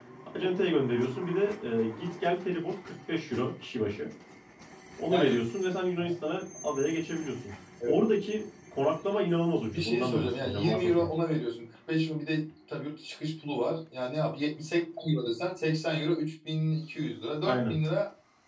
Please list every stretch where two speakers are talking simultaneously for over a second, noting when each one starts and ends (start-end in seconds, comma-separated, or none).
9.7-11.1